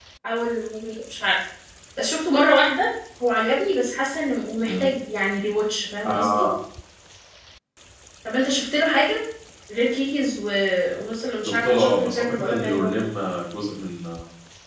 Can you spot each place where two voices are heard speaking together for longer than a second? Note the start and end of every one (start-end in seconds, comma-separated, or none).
11.5-13.0